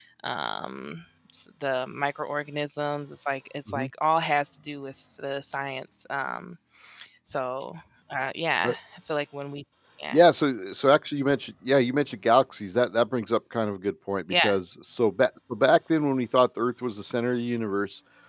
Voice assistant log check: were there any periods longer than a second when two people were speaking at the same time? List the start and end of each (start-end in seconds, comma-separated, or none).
none